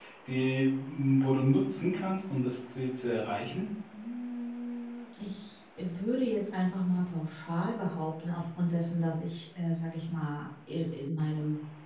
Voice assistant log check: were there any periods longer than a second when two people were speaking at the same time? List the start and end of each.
none

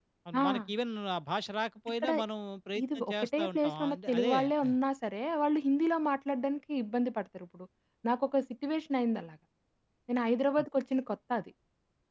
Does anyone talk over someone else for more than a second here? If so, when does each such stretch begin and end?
3.0-4.8

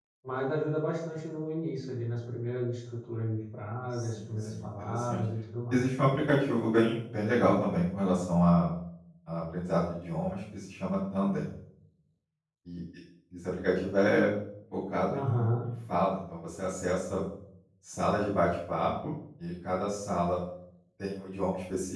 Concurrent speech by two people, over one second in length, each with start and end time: 3.9-5.2

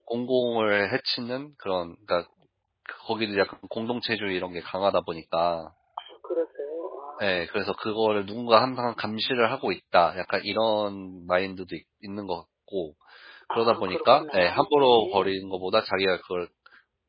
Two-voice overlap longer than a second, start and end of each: 13.5-15.3

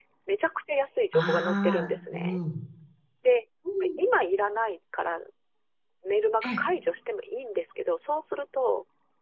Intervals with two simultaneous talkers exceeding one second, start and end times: 1.1-2.4

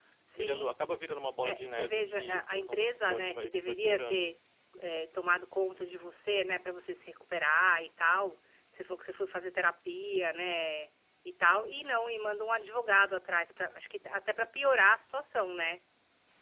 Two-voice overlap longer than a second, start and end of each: 1.4-4.3

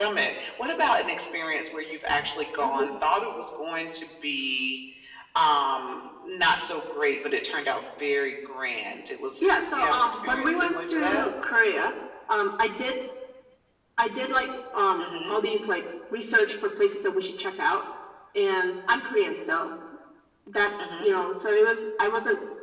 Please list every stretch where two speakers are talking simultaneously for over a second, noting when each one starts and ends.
9.4-11.3

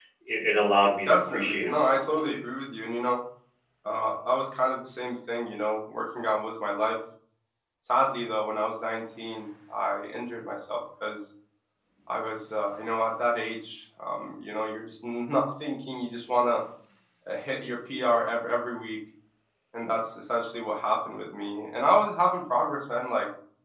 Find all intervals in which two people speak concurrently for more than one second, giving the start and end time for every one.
1.1-2.4

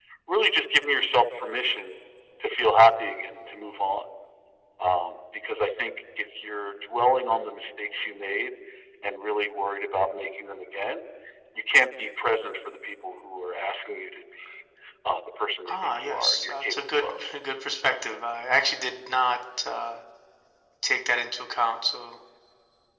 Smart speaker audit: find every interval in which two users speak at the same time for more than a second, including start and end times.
15.7-17.1

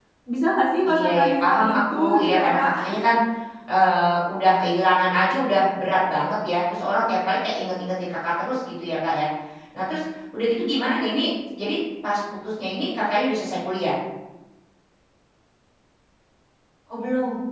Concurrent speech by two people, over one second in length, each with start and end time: 0.8-2.7

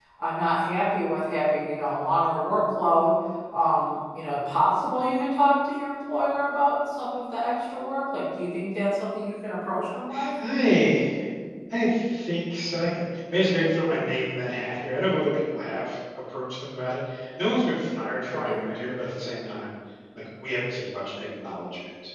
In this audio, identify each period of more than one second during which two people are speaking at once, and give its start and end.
none

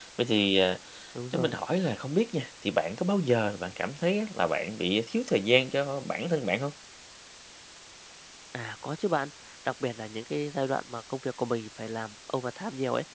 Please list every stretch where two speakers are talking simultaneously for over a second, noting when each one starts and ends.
none

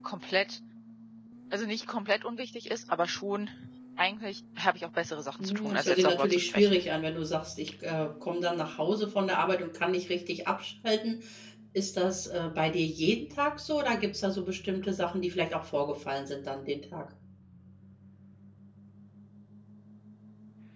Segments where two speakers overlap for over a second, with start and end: 5.4-6.8

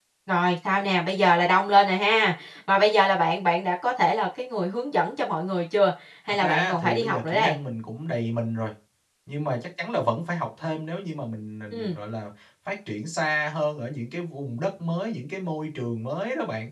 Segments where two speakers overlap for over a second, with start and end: 6.3-7.6

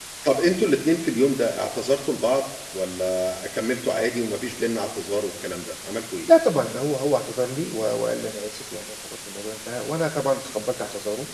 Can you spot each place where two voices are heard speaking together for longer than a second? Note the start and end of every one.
none

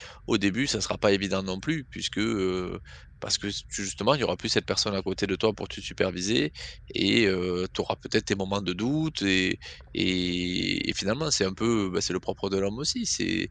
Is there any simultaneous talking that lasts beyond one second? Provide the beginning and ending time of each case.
none

